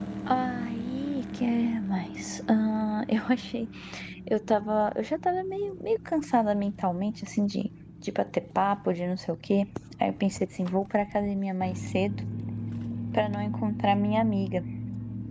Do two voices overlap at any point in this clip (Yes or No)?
No